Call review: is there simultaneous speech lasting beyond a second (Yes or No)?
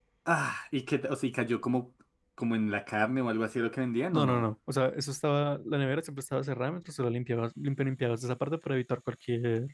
No